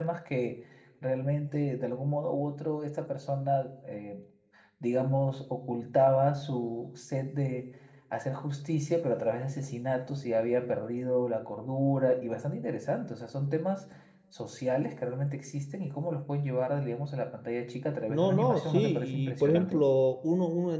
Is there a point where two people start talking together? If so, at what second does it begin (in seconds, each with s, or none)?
18.1 s